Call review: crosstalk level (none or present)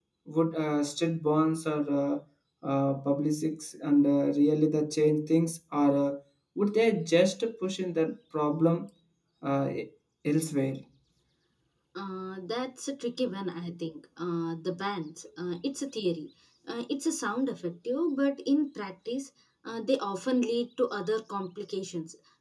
none